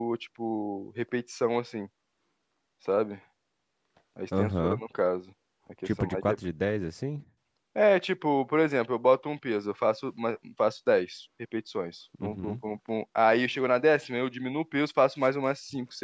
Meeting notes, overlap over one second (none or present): none